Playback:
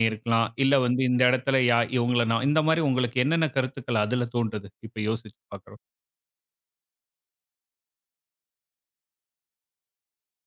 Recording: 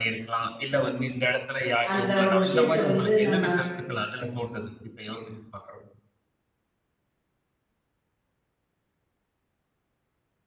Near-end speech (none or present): present